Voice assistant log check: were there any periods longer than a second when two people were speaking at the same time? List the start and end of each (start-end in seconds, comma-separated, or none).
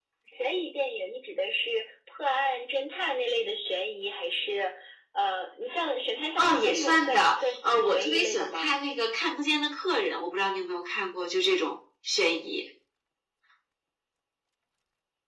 6.4-8.7